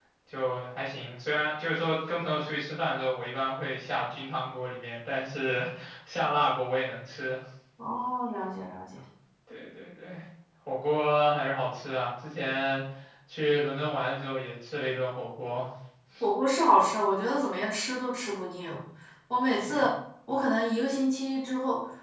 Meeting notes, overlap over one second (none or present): none